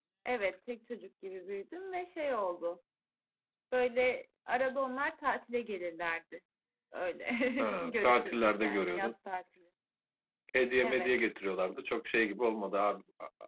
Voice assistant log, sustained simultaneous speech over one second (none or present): present